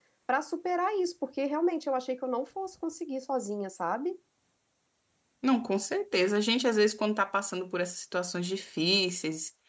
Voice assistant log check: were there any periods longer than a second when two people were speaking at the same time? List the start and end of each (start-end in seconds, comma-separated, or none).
none